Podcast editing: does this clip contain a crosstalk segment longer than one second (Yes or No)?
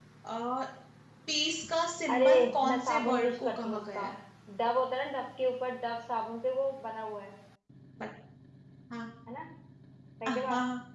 Yes